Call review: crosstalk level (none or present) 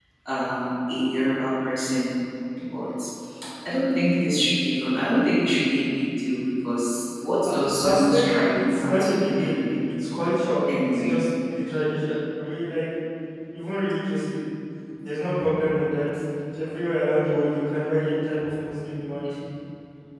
present